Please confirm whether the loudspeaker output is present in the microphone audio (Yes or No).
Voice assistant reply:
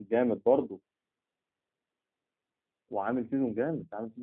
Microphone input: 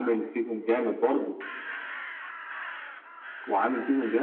Yes